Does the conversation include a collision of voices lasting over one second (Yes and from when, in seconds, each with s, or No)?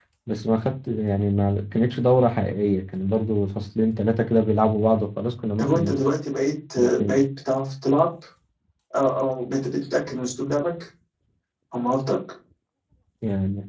No